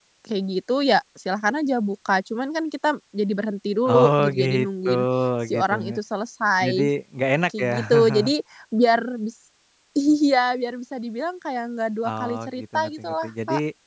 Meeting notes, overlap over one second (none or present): present